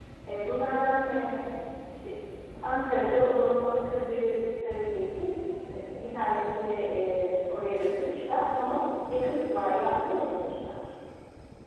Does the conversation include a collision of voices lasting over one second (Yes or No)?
No